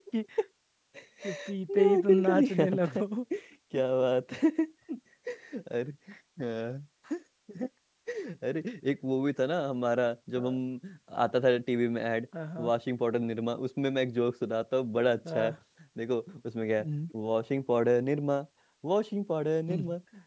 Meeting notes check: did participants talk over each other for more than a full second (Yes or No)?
Yes